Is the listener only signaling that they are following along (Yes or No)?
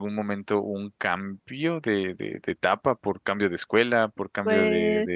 Yes